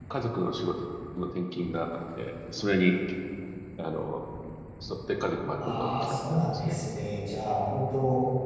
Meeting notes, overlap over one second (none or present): present